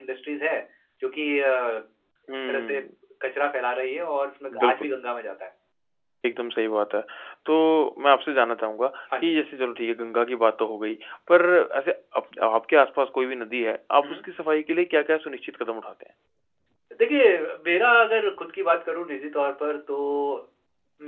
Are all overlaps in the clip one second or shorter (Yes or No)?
Yes